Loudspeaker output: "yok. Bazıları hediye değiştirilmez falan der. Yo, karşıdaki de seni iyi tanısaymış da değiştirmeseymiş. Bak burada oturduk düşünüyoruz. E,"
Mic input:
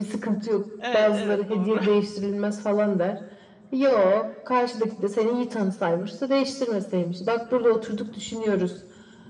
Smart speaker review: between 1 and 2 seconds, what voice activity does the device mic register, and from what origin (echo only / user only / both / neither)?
both